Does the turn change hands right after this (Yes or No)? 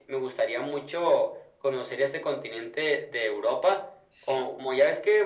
No